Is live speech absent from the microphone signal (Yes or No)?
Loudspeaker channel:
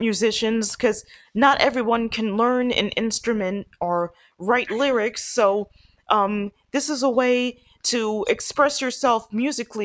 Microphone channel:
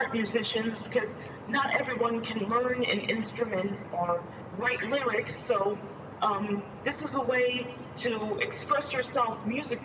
Yes